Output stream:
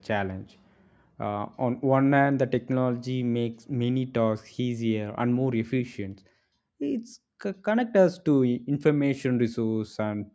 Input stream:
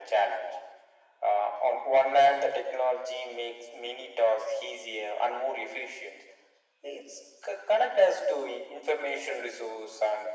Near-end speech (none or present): none